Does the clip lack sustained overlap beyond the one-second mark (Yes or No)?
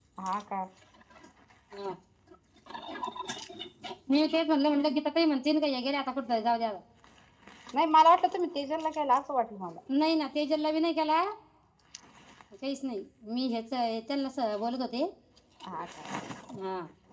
Yes